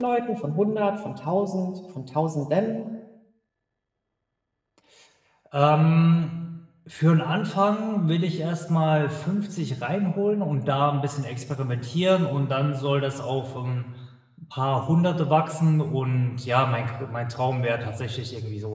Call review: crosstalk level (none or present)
none